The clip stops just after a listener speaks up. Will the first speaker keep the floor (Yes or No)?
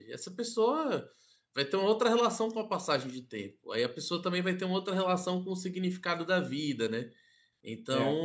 Yes